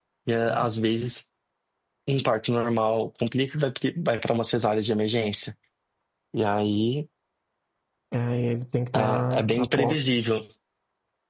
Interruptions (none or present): present